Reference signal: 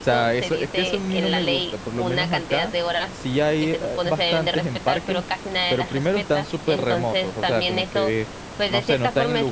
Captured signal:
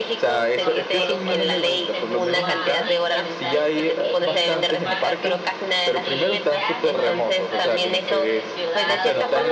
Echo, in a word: present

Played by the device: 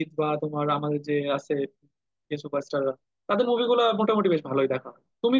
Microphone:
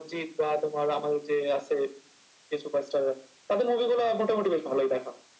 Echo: present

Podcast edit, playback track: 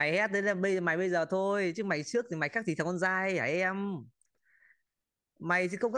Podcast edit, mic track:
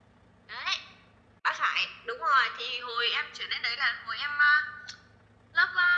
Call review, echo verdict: none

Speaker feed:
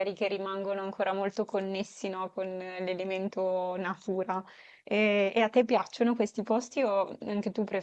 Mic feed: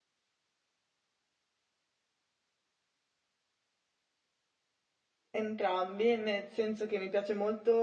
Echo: none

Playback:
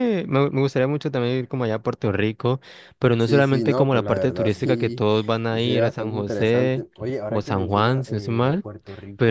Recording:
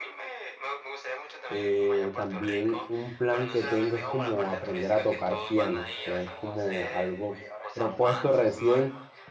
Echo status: present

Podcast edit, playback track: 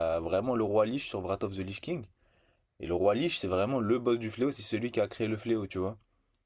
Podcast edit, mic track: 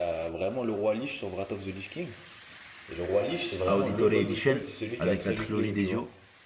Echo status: present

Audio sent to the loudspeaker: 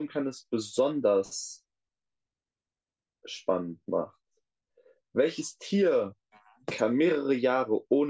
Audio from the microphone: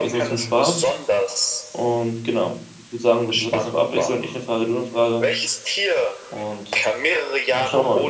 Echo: present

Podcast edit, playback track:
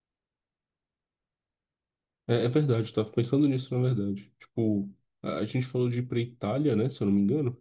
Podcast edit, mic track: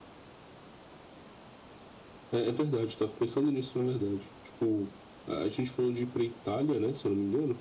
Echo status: present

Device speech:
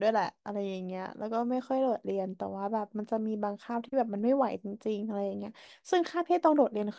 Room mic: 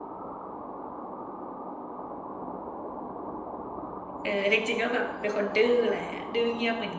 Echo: none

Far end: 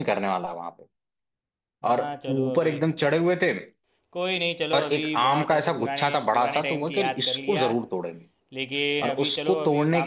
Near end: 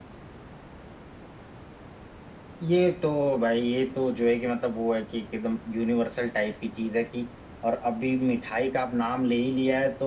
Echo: none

